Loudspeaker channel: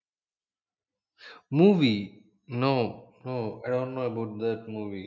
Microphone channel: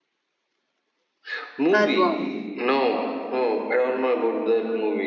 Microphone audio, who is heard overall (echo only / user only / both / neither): both